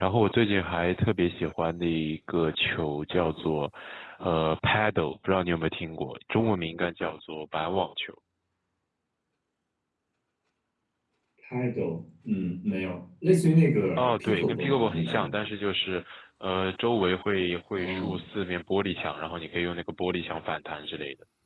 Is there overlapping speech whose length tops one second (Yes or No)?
Yes